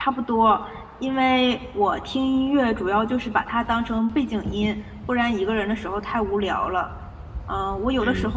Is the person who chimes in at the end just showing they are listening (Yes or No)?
Yes